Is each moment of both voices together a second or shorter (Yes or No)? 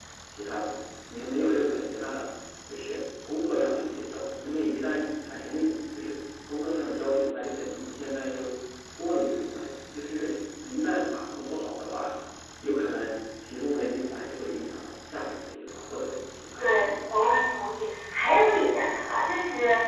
Yes